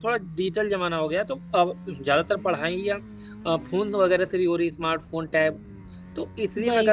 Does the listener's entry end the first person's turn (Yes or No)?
No